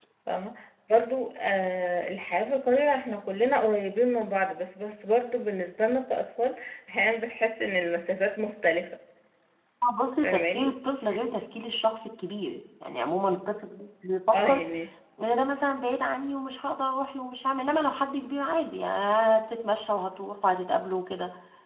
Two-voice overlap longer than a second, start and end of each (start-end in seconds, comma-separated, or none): none